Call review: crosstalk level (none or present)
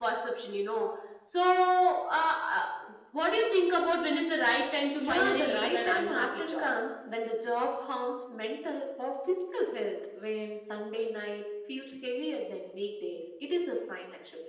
present